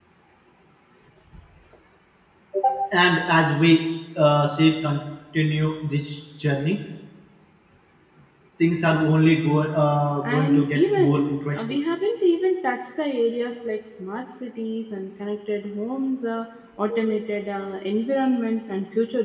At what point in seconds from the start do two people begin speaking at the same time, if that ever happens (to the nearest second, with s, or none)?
10 s